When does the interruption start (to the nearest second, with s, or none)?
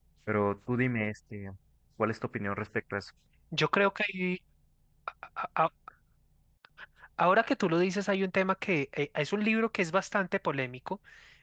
none